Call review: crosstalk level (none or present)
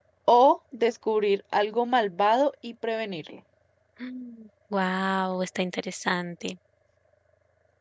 none